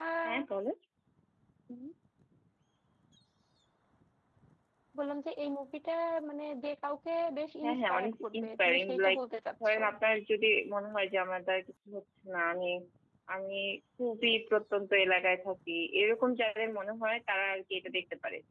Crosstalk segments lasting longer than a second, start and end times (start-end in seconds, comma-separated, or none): 7.6-9.2